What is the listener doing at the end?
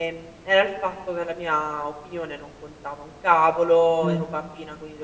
listening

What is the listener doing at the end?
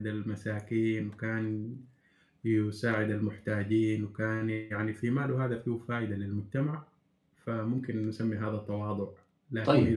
listening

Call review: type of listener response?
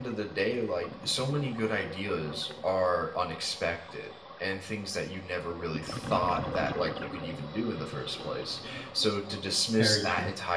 listening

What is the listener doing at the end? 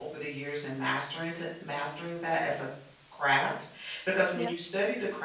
listening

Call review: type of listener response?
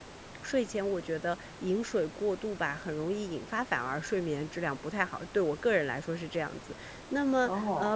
listening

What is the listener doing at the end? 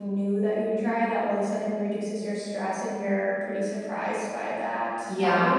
taking over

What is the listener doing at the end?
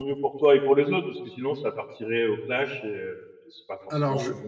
taking over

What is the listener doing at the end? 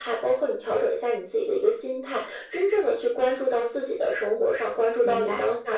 listening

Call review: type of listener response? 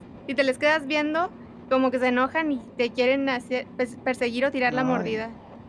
taking over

